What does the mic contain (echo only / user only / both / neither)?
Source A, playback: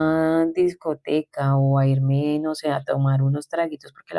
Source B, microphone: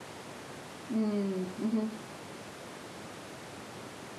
user only